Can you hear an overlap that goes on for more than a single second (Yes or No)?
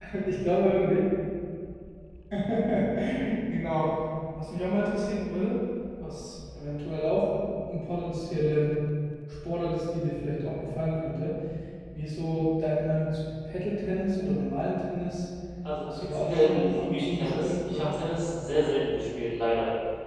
Yes